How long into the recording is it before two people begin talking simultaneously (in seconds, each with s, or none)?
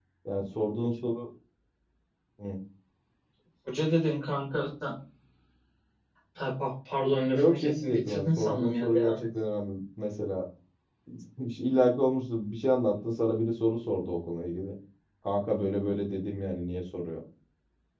7.3 s